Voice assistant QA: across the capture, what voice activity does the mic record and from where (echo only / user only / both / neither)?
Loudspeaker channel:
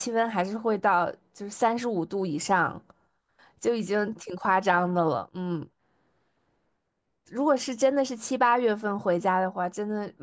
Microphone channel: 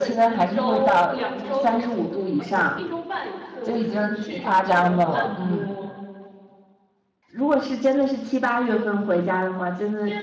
both